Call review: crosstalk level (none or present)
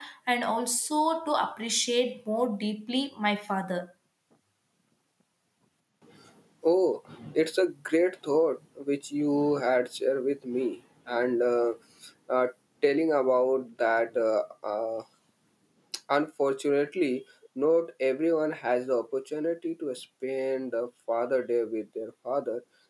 none